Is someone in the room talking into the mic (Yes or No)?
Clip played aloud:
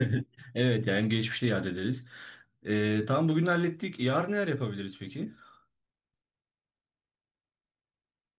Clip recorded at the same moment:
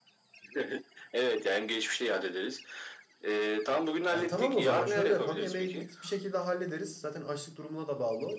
Yes